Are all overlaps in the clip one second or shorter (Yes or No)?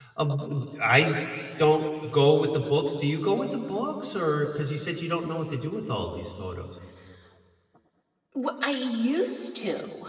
Yes